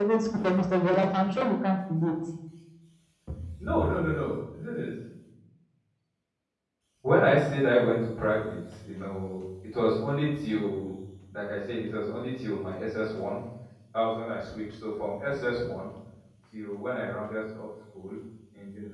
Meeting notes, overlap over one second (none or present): none